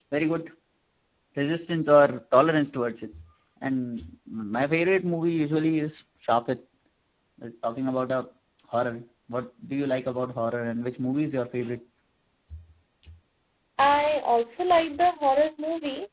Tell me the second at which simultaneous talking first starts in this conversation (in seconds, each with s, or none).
none